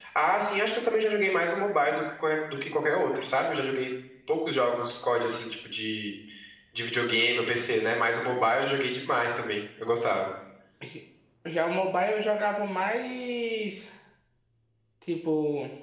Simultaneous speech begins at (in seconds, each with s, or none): none